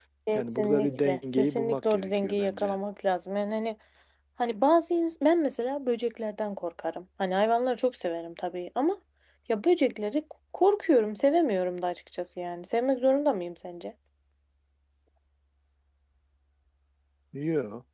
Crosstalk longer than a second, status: present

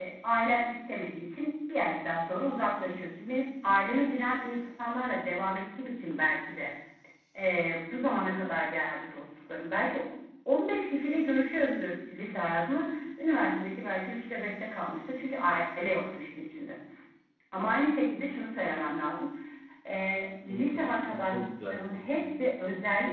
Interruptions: present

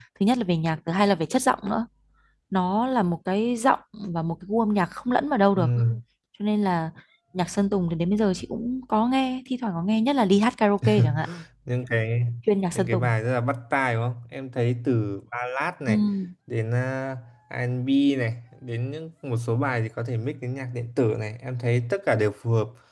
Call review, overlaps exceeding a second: none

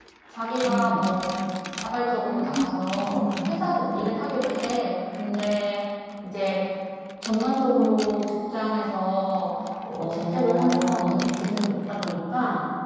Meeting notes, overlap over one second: present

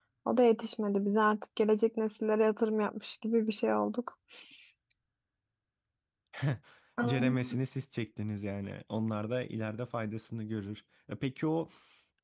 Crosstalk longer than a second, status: none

